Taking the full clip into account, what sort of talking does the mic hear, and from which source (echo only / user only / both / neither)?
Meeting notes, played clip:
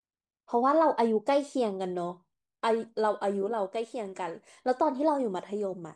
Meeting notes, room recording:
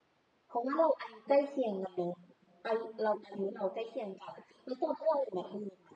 echo only